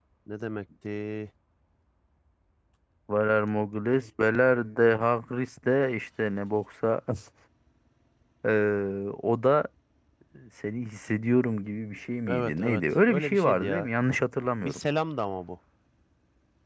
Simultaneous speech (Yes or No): Yes